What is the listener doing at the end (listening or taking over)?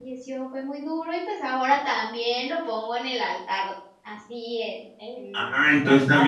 taking over